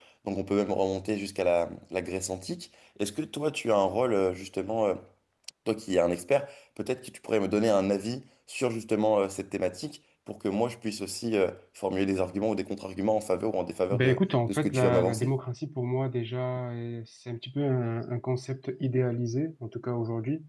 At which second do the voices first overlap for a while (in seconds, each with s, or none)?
13.9 s